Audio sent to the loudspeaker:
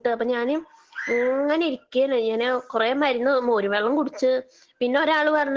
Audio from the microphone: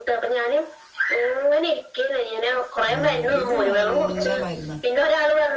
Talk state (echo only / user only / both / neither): both